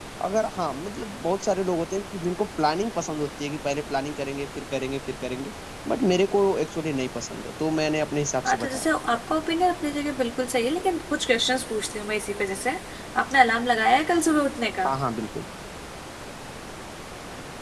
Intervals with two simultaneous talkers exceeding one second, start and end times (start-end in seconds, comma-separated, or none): none